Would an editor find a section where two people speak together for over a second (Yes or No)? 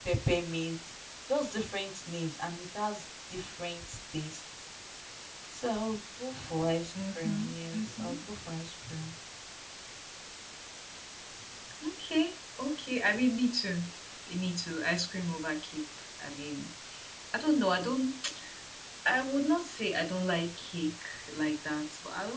Yes